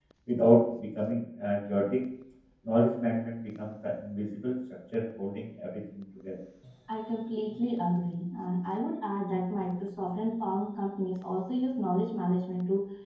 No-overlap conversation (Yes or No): Yes